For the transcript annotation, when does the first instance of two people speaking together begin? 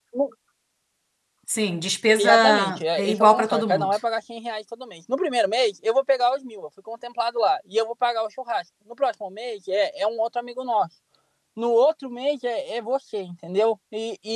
2 s

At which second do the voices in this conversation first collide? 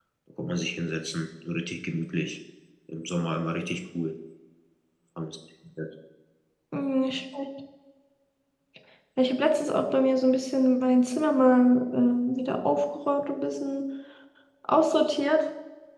none

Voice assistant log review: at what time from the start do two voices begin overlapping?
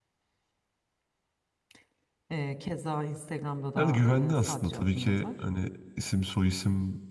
4 s

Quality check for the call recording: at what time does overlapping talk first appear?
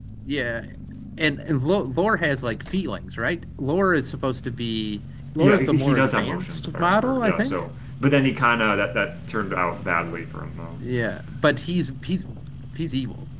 5 s

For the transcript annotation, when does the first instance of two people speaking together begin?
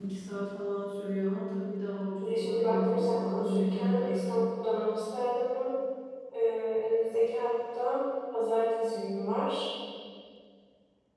2 s

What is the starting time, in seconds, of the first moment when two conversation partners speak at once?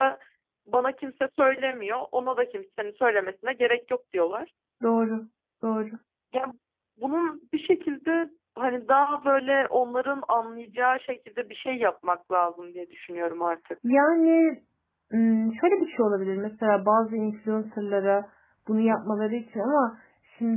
none

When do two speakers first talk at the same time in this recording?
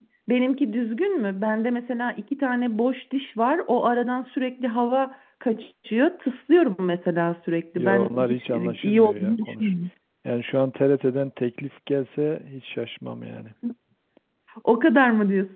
8 s

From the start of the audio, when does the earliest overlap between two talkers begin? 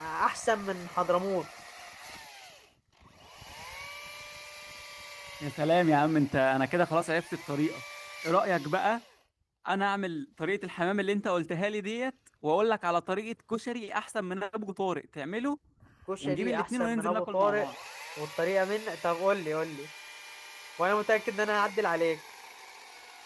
16 s

